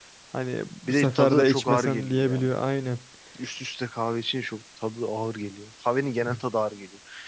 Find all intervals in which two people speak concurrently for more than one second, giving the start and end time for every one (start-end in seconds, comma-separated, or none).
0.9-2.5